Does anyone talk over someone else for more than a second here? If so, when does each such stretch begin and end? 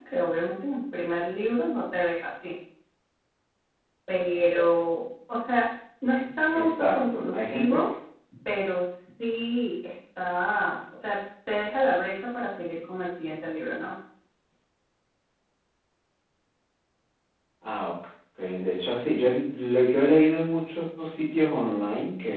6.5-7.8

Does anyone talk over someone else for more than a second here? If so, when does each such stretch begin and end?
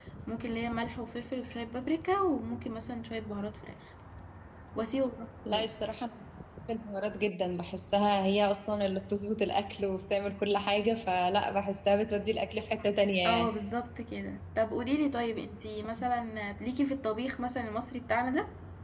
none

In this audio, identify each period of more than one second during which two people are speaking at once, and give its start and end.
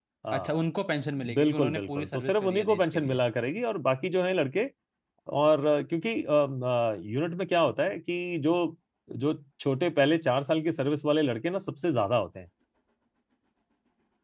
1.3-3.2

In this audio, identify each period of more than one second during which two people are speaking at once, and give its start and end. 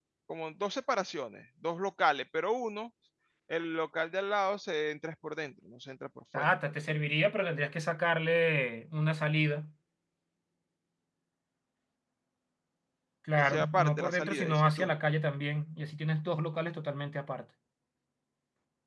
13.4-14.9

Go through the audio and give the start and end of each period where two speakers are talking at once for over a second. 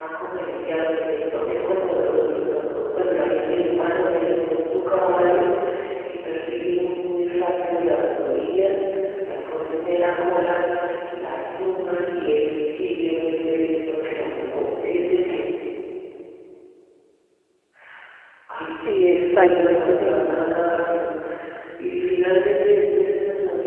18.9-20.5

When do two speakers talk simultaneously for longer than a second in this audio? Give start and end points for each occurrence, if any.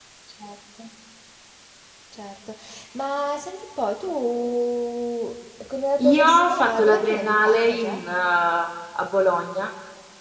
6.0-8.0

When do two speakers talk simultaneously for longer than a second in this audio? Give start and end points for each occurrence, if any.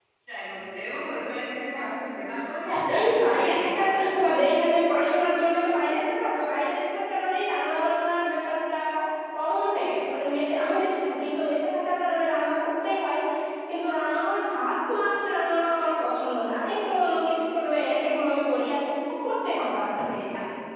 2.6-4.0

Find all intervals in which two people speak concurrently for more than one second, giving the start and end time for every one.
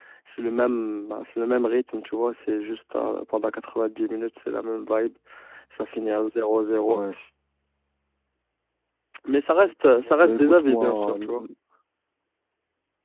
10.2-11.4

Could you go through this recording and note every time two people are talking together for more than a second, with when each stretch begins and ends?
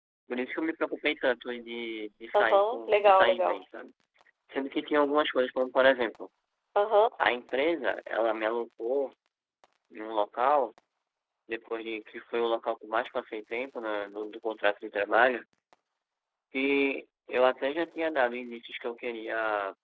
2.3-3.6

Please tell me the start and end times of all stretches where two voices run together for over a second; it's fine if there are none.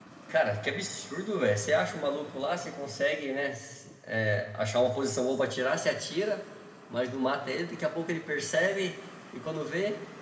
none

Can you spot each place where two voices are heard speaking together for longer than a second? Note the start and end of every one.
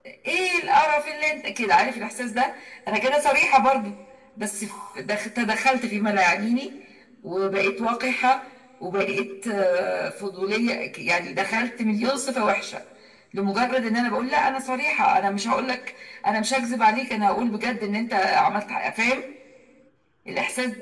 none

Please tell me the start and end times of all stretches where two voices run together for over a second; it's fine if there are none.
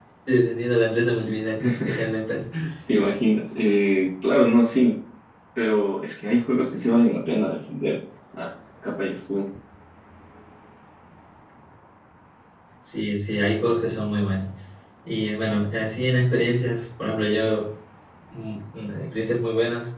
none

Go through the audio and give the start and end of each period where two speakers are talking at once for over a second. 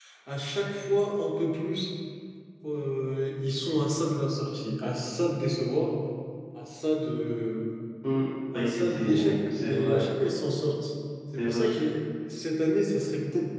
8.5-10.0

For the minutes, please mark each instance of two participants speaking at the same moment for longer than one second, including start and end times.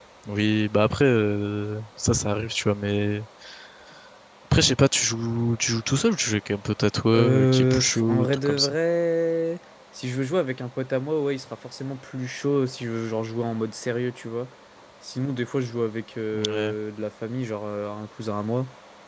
7.1-8.7

